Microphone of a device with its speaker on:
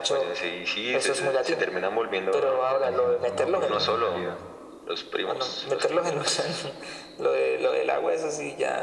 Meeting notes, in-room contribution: present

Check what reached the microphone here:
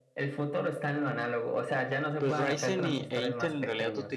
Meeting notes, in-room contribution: present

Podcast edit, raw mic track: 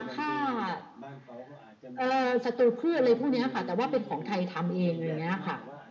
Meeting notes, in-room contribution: present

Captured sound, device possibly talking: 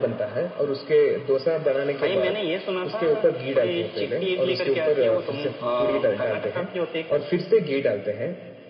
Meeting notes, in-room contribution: none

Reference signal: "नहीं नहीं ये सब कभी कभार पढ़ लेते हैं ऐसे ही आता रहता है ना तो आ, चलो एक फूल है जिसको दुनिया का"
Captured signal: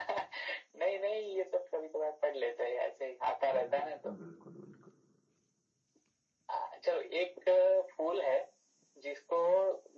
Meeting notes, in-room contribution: present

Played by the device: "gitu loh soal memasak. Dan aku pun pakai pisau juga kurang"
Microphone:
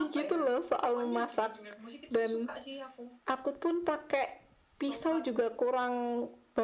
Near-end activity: present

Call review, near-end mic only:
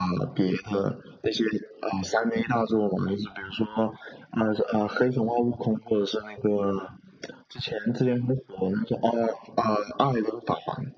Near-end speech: none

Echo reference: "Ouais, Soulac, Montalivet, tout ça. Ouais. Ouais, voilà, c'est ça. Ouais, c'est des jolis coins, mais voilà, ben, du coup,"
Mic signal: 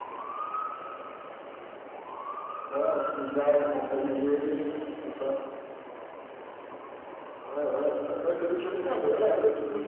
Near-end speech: none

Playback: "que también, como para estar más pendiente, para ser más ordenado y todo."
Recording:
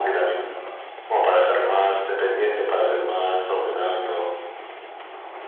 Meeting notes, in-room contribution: none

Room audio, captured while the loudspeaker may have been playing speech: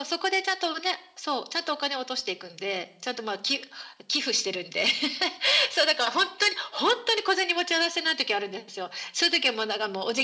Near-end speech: none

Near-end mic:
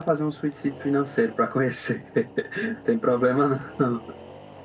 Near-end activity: none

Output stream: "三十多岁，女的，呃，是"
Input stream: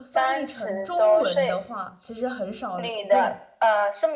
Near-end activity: present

